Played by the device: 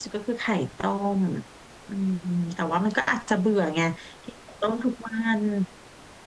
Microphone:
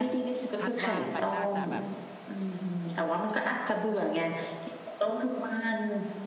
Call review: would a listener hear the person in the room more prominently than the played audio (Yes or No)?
No